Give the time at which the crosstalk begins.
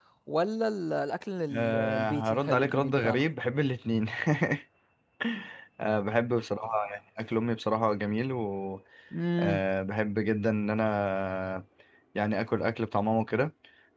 2 s

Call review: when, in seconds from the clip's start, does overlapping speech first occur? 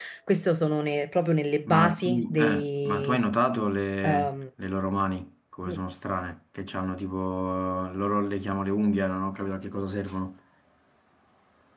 2 s

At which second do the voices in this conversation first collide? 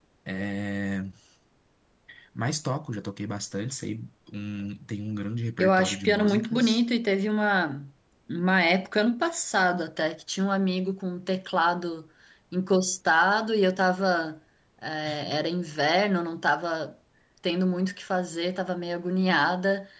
6 s

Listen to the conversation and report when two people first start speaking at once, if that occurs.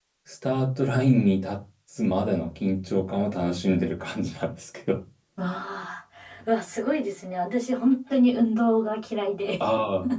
none

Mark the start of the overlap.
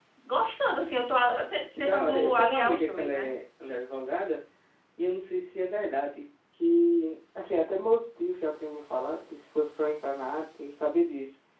2 s

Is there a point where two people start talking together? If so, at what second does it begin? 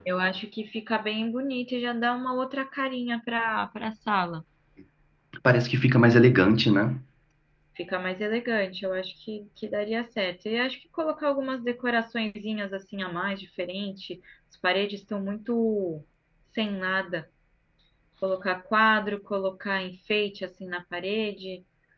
none

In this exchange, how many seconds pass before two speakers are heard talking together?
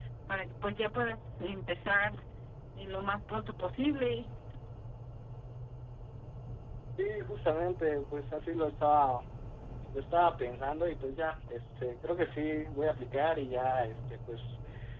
none

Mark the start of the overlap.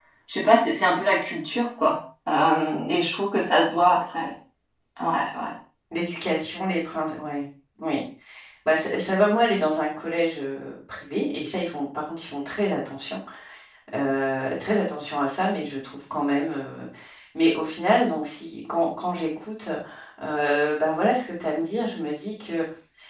none

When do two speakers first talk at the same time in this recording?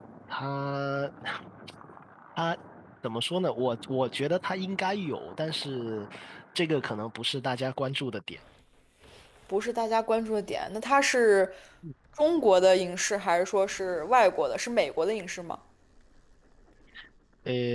none

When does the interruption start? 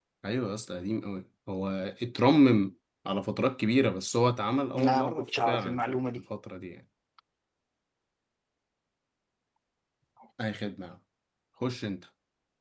5 s

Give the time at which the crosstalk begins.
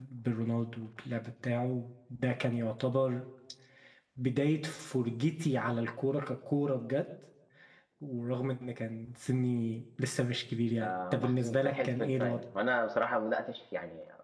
11 s

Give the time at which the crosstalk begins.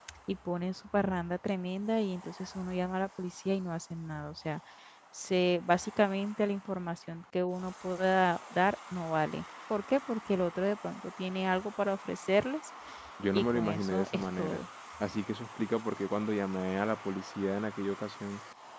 13 s

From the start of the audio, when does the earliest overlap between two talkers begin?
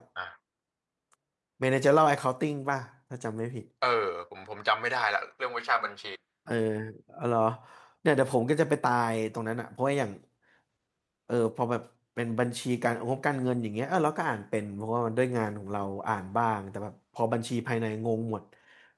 none

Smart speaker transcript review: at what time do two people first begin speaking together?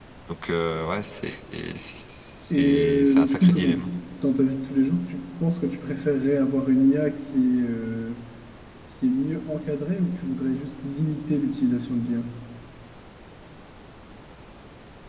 3 s

